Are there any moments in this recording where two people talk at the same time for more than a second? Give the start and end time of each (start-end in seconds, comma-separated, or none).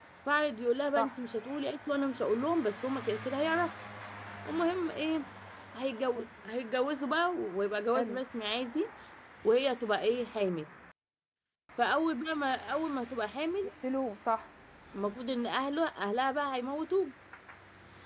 none